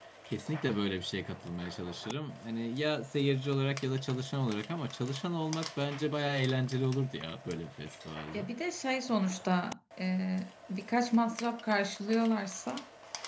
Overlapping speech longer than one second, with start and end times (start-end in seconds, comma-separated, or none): none